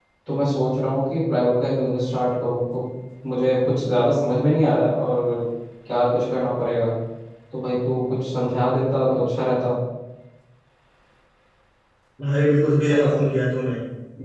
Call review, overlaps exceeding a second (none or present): none